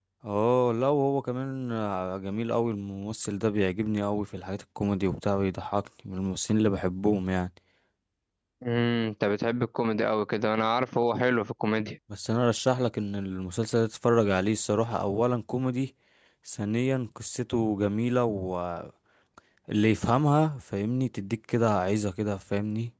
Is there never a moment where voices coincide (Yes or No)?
Yes